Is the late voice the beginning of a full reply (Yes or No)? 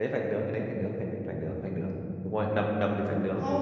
Yes